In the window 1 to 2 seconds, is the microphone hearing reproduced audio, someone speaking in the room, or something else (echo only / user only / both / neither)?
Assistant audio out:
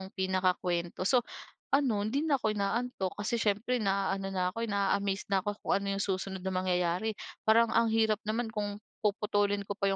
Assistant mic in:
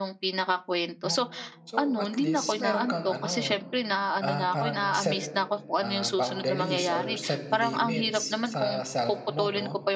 both